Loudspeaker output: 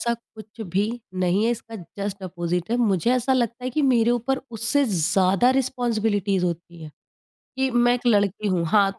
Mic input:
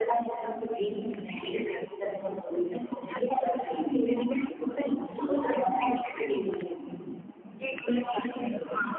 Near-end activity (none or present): none